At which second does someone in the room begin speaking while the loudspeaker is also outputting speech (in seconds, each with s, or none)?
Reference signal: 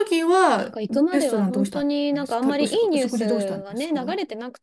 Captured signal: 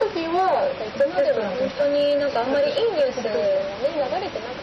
none